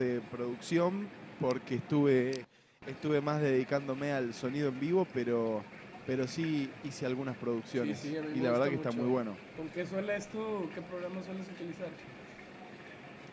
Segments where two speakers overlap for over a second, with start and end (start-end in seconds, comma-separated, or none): 7.8-9.1